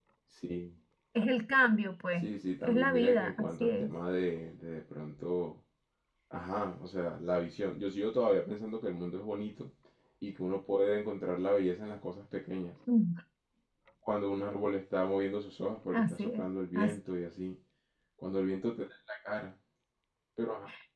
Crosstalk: present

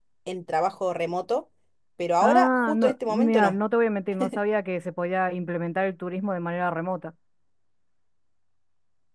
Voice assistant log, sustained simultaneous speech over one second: present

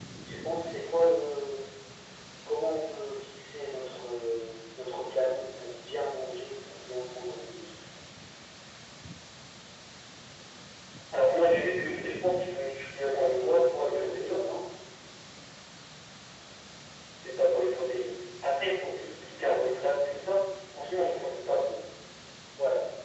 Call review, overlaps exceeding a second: present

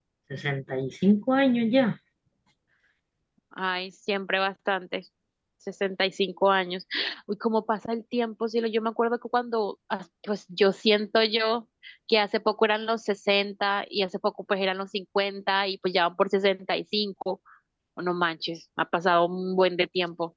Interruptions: none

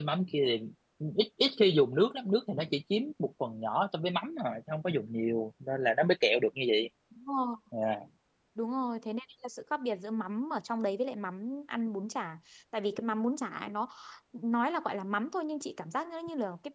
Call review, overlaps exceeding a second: none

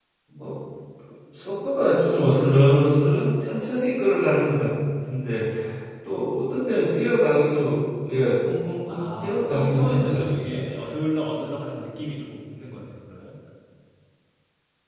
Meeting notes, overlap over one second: present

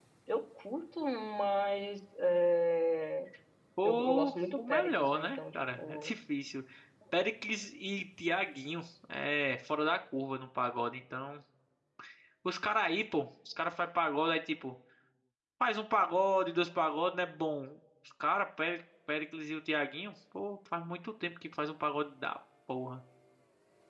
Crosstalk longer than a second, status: present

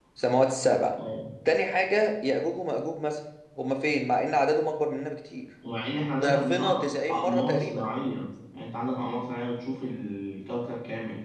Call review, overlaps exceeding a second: present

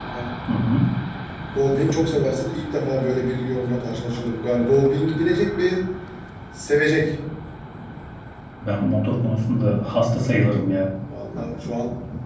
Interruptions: none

